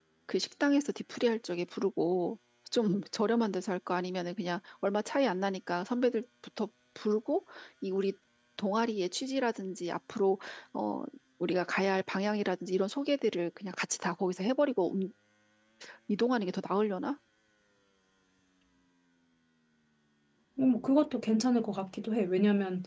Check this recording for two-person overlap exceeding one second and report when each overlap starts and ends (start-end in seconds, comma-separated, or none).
none